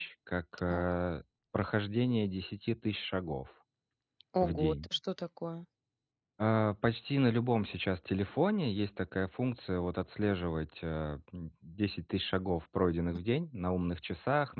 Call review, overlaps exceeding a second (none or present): none